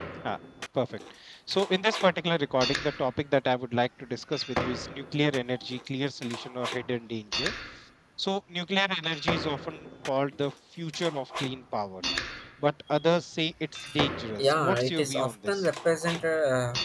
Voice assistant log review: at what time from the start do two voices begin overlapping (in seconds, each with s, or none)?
14.4 s